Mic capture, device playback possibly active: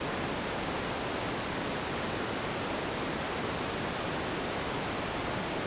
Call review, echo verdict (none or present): none